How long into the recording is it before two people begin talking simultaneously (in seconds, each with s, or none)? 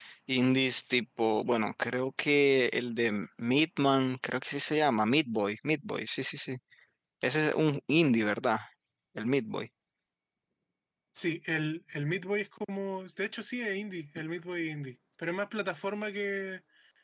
none